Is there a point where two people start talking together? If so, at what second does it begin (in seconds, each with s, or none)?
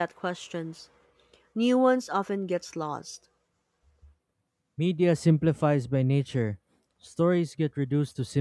none